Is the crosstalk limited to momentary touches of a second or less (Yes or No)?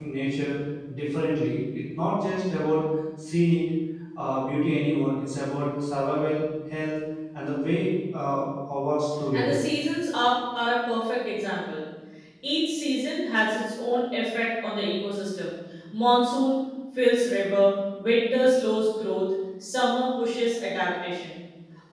Yes